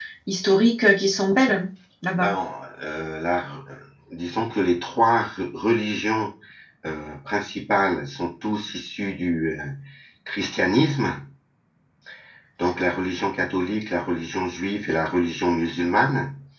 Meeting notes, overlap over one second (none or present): none